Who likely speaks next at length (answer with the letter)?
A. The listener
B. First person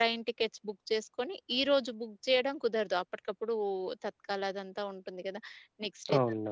B